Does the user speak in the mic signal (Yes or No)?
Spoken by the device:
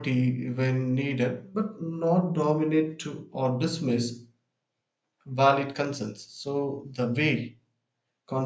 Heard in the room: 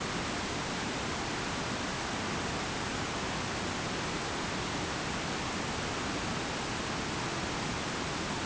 No